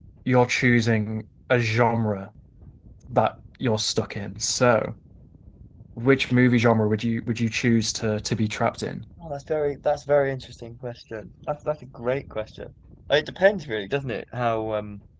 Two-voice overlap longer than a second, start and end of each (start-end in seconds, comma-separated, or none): none